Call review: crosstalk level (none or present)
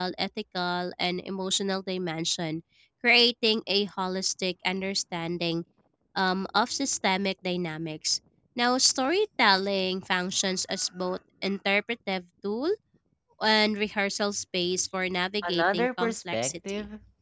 present